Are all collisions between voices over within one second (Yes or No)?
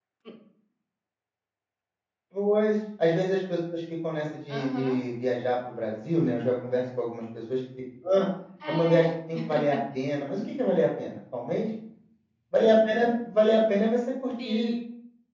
Yes